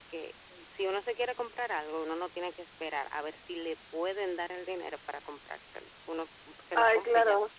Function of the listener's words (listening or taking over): taking over